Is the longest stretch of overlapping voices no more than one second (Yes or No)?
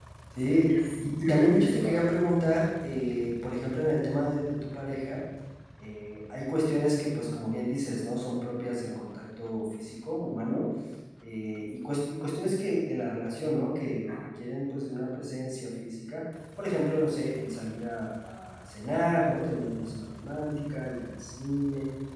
No